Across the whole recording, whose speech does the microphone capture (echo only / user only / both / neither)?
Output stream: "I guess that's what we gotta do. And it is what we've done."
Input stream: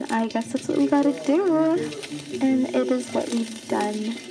both